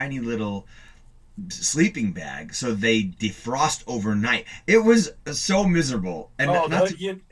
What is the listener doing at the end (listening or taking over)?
taking over